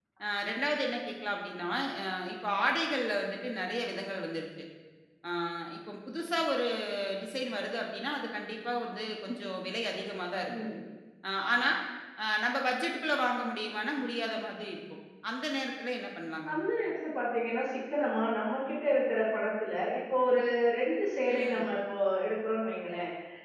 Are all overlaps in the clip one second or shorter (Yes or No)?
Yes